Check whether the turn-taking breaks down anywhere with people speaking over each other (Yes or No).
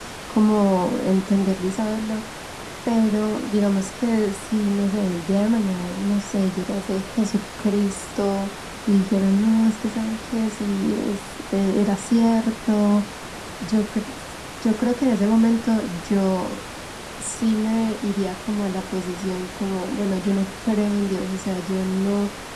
No